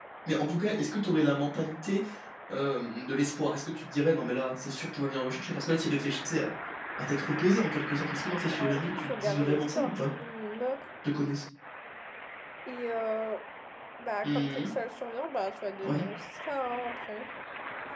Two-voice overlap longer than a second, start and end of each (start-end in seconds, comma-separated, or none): 8.5-10.1